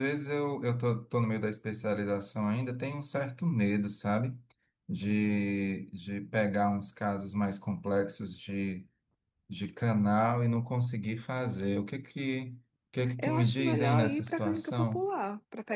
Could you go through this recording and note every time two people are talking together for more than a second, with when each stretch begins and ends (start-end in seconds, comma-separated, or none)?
13.2-15.1